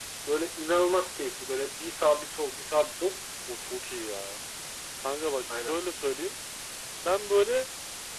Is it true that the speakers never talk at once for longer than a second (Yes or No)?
Yes